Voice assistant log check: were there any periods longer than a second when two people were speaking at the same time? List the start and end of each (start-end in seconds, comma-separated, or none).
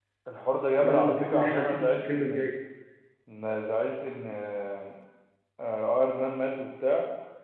0.8-2.6